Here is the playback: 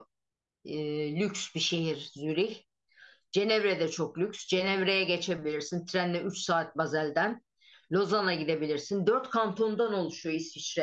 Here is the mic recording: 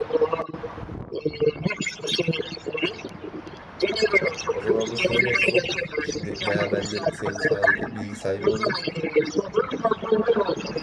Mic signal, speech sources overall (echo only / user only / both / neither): both